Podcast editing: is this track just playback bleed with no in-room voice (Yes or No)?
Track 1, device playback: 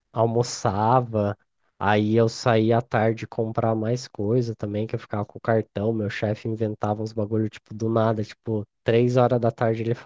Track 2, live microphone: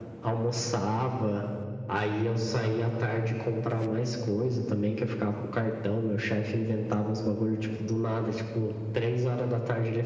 Yes